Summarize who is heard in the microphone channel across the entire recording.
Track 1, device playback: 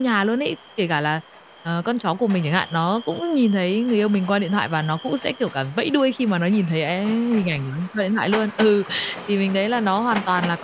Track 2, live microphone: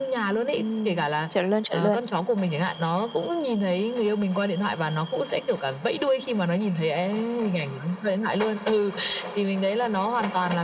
both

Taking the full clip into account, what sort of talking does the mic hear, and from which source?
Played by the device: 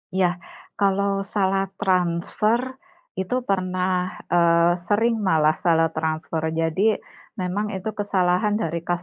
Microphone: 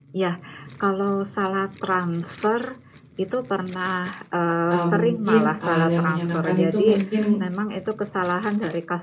both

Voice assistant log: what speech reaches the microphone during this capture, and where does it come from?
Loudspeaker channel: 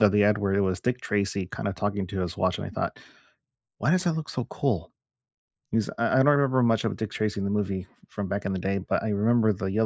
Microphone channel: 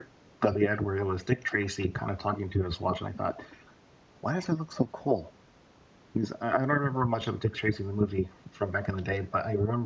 echo only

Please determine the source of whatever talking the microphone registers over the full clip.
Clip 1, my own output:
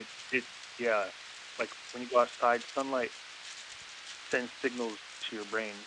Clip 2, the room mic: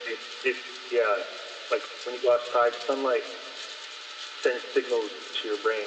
echo only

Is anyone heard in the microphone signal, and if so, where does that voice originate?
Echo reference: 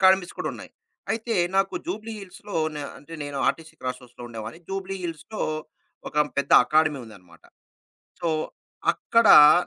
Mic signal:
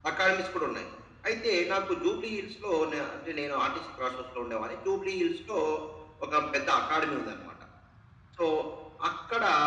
echo only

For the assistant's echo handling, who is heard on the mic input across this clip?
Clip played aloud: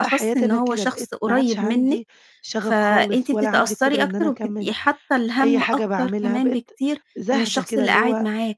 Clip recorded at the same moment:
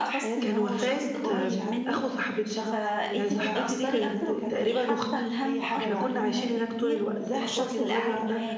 both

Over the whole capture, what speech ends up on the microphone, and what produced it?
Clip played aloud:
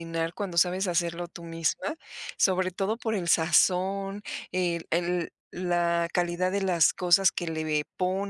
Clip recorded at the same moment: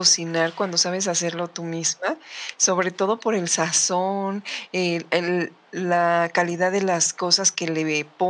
echo only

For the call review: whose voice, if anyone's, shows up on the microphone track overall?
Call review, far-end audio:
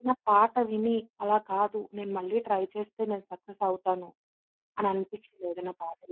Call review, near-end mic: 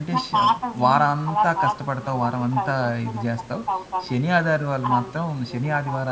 both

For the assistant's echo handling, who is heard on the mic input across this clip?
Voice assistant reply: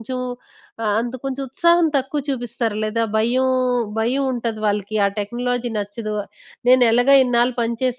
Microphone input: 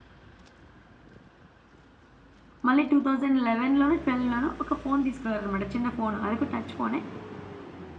user only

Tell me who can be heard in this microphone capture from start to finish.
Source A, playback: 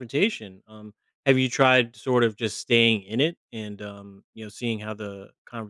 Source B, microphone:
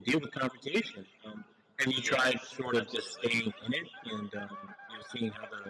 both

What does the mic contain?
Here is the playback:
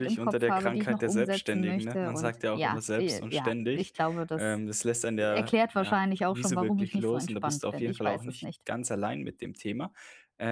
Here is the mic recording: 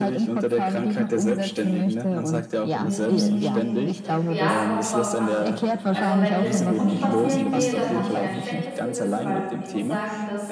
both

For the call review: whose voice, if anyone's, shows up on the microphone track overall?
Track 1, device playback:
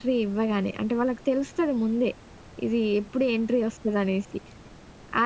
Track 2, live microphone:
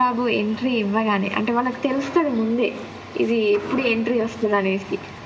echo only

